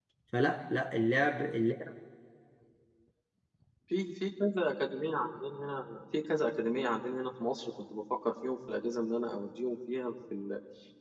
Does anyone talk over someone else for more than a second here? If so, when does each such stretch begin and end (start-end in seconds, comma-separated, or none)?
none